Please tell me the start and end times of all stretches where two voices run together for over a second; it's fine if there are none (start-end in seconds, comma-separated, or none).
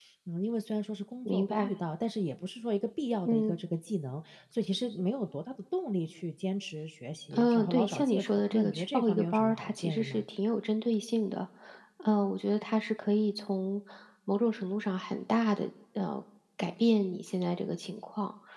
7.3-10.2